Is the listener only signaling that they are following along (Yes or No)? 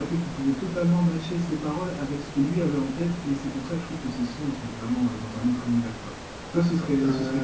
Yes